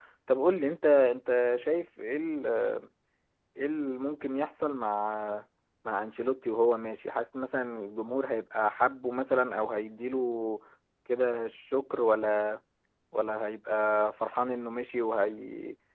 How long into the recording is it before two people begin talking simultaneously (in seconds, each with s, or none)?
none